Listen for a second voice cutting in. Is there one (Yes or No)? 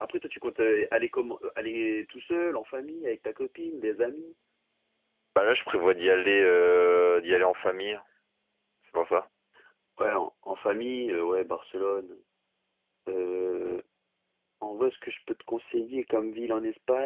No